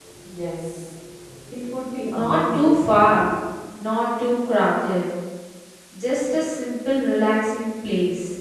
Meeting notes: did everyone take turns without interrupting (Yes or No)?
No